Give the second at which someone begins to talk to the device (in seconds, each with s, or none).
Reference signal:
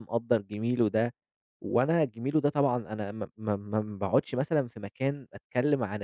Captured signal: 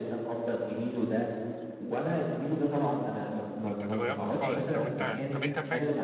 3.6 s